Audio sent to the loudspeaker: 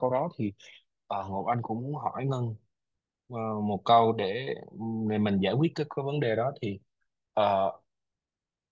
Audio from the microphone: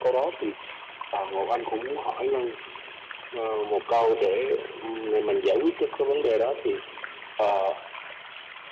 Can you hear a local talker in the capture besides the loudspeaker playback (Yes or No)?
No